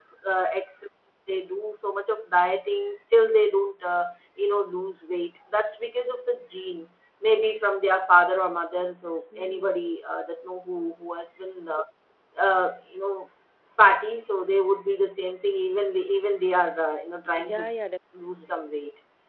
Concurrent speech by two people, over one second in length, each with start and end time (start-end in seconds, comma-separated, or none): none